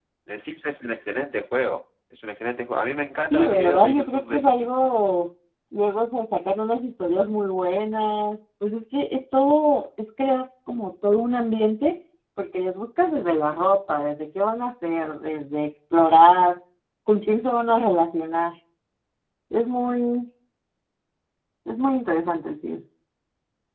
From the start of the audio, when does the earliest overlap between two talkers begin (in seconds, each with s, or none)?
3.3 s